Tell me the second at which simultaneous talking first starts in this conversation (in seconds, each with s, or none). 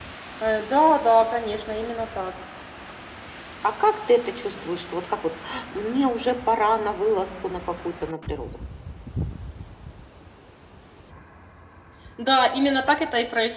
none